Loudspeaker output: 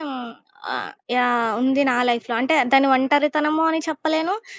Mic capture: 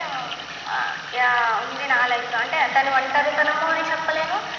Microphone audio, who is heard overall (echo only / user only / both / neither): echo only